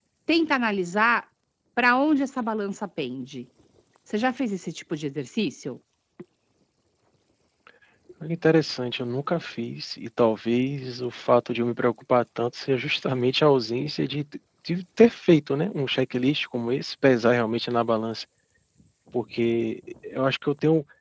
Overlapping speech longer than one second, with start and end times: none

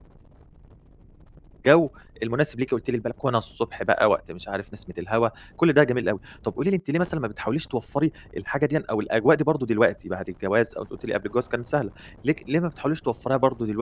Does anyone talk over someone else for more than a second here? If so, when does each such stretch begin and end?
none

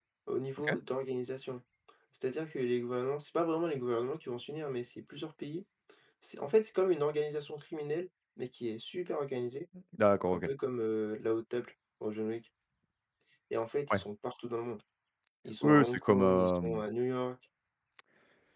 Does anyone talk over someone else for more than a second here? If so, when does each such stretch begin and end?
15.6-16.8

